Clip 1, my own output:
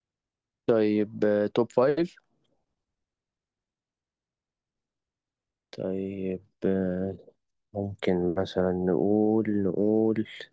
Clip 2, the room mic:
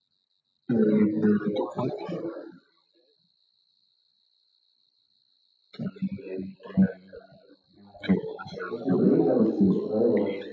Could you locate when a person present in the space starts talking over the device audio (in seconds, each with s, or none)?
8.7 s